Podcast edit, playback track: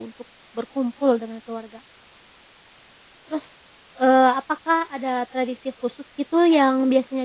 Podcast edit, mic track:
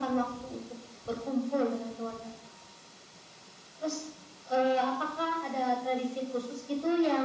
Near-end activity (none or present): none